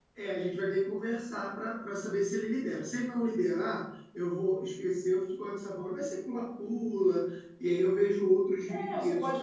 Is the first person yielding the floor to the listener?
Yes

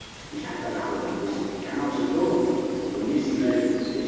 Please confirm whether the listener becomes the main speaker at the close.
No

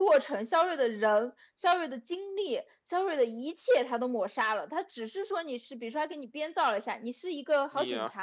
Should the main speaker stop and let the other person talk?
No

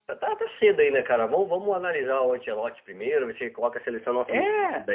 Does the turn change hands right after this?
No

